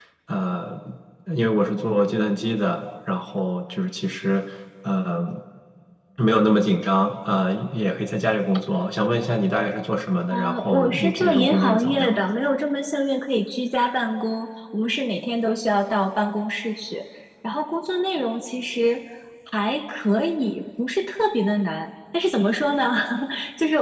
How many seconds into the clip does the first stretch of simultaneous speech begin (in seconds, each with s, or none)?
10.3 s